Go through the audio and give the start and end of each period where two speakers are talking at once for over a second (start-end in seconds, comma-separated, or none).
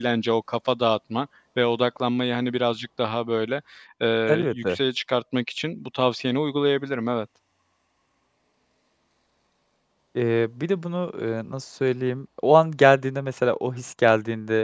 none